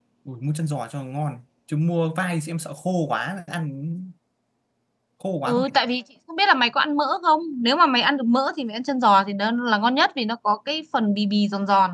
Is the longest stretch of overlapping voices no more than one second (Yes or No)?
Yes